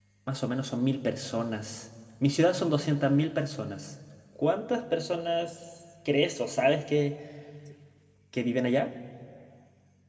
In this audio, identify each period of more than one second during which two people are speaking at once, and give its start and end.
none

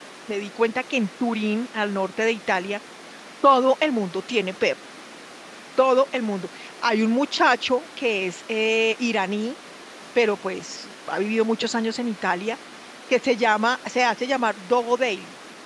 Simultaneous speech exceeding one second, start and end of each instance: none

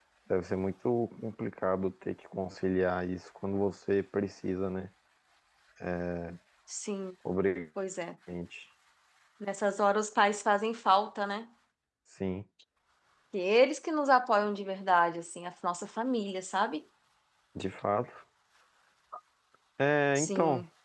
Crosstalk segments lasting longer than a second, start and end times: none

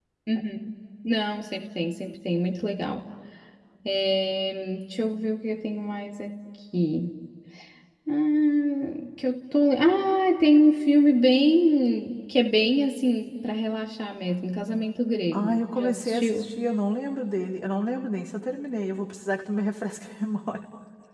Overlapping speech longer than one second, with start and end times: 15.3-16.5

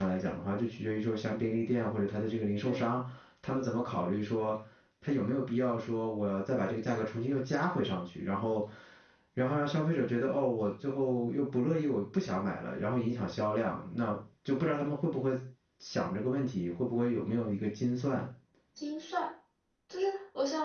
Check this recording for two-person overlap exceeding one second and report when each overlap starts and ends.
none

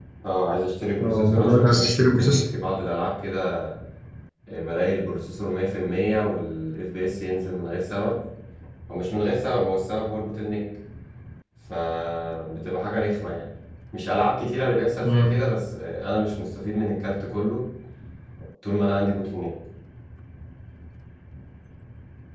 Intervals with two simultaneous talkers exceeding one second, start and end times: 1.0-2.4

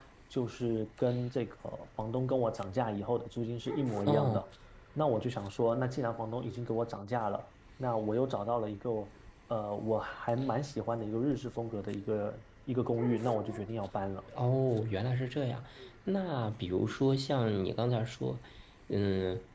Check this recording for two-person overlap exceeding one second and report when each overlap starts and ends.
none

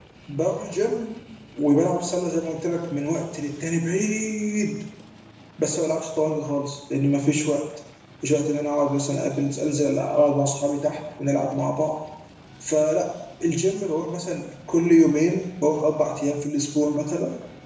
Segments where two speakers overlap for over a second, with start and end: none

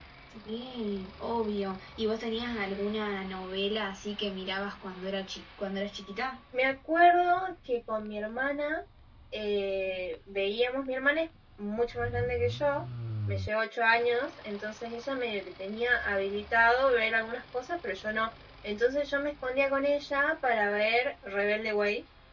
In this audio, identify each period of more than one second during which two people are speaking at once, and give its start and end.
none

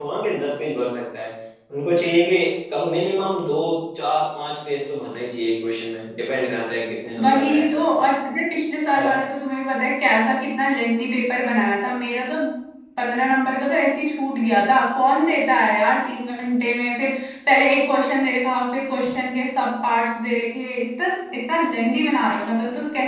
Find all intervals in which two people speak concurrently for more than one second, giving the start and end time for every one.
none

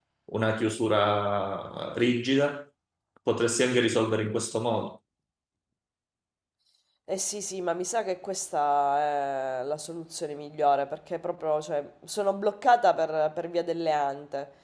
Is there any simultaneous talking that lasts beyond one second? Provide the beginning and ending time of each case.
none

